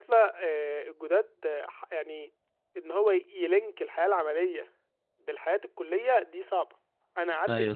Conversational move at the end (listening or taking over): listening